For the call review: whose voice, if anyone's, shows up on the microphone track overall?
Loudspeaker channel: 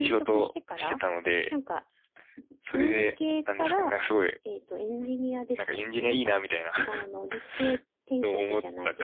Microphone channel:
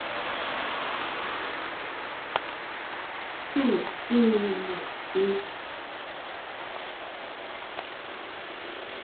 user only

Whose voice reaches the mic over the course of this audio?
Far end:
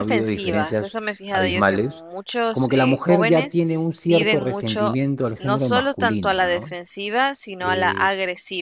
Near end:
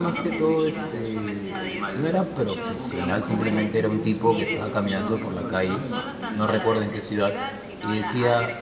both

